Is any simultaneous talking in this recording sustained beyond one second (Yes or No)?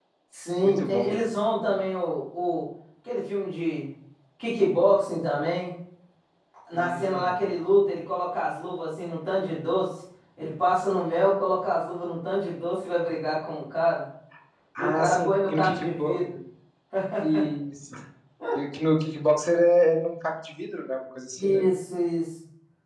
Yes